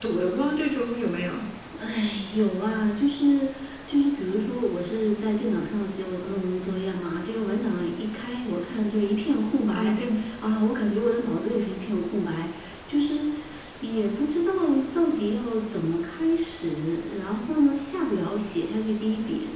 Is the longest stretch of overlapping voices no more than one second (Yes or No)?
Yes